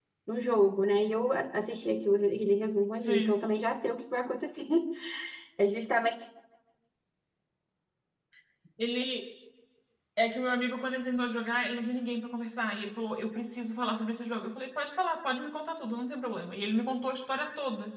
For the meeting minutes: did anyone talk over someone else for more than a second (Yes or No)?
No